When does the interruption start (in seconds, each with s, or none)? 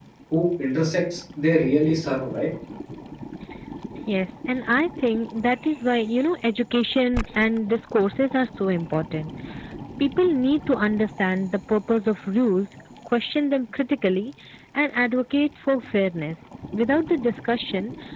none